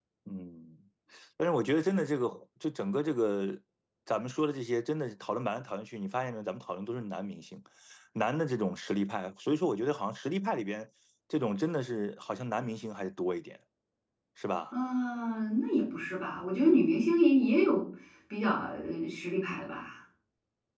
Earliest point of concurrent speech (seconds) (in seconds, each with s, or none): none